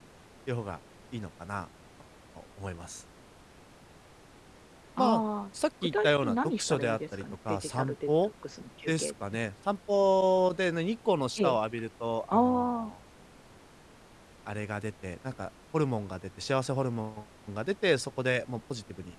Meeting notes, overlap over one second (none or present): present